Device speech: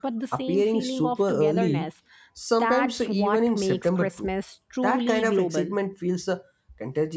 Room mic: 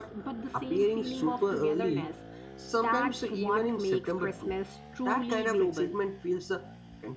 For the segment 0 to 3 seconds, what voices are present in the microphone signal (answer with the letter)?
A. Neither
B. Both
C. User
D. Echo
D